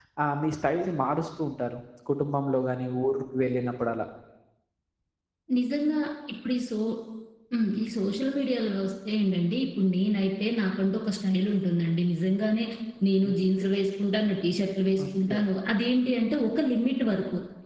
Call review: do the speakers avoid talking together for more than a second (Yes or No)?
Yes